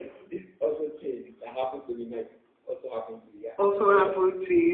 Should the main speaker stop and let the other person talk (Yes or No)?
Yes